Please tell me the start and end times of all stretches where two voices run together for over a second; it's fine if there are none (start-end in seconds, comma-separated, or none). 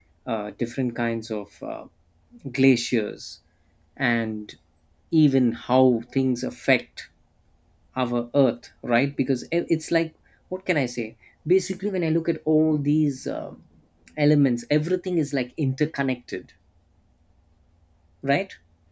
none